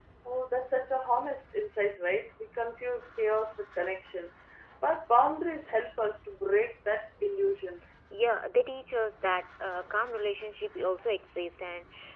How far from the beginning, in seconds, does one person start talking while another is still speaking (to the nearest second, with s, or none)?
none